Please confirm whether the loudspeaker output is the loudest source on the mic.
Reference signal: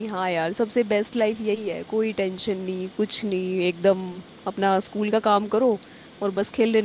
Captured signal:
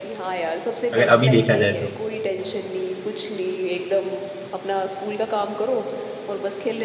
No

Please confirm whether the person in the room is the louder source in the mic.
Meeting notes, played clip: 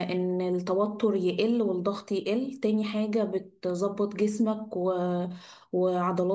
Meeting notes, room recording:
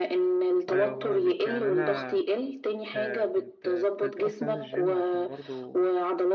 No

